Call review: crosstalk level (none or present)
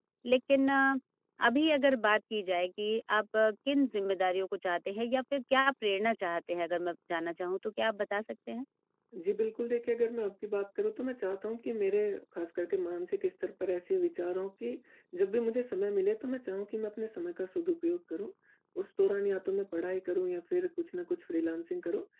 none